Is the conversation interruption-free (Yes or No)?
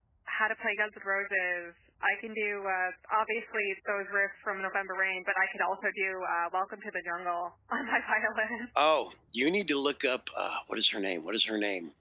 Yes